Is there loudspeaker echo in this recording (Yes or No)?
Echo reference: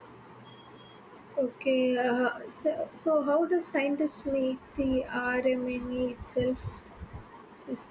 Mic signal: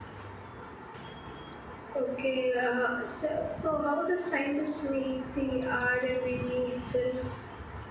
Yes